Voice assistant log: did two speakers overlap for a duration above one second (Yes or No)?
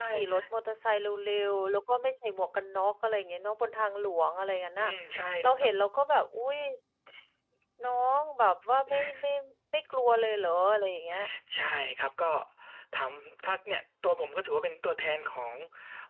No